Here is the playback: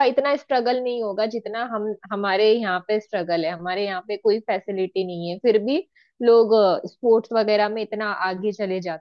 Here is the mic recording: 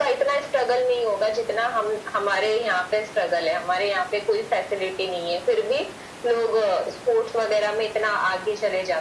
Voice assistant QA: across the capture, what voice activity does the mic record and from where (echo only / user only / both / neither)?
echo only